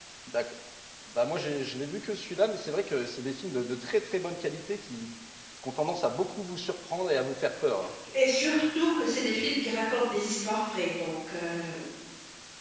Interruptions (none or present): none